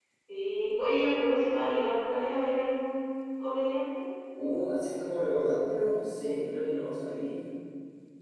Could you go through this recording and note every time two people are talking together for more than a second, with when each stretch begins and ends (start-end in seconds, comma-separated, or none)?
none